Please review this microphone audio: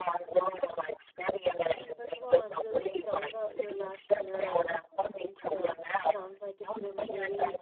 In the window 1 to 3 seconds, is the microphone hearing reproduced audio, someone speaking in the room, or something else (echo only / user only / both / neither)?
both